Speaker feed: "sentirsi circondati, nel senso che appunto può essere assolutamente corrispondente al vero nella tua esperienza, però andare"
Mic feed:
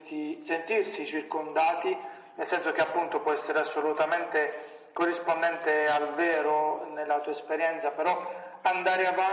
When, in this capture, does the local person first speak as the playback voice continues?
none

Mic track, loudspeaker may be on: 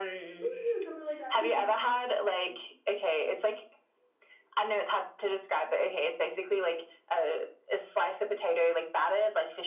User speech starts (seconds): 0 s

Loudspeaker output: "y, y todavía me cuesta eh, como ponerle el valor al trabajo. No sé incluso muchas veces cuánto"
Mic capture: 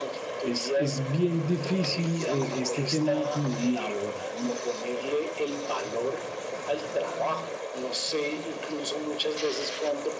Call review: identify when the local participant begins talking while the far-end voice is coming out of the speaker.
0 s

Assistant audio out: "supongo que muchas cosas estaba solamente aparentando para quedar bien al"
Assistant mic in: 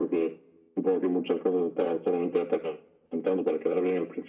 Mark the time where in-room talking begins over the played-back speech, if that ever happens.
none

